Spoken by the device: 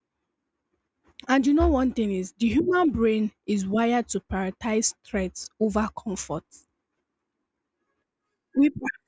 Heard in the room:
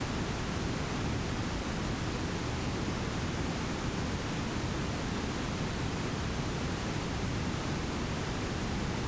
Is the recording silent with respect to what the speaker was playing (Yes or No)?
Yes